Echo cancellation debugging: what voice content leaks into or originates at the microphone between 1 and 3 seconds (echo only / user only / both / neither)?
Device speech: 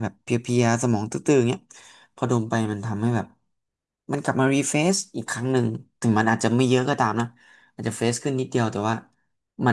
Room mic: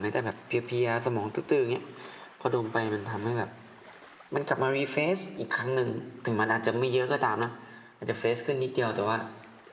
echo only